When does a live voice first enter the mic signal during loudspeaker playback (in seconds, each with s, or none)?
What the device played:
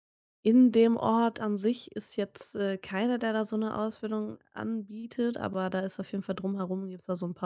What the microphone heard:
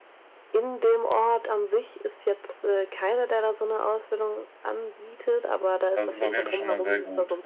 5.9 s